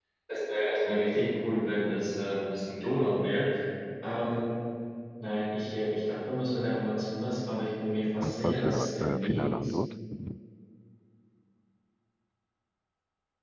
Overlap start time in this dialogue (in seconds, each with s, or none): 8.2 s